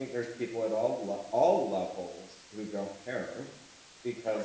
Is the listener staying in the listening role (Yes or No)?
Yes